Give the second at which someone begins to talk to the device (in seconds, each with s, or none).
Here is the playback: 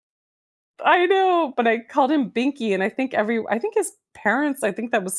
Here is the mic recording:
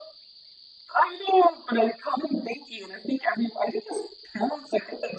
none